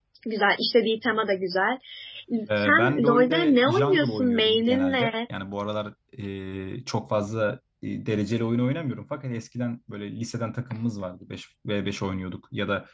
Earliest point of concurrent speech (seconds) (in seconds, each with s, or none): 2.6 s